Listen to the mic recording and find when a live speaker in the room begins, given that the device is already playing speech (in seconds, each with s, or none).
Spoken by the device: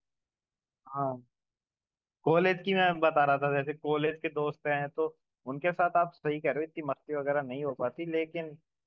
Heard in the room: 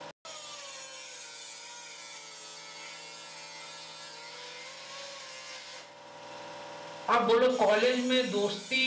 7.1 s